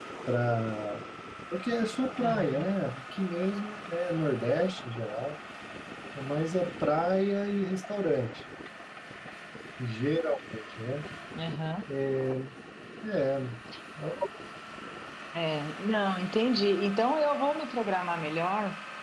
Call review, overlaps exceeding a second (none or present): none